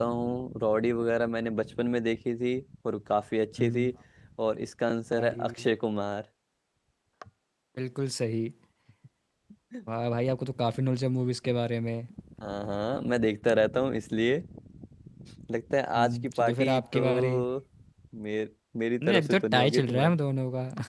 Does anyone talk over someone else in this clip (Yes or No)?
Yes